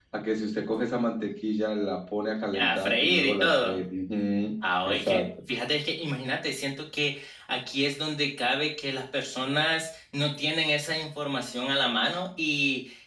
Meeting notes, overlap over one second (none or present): present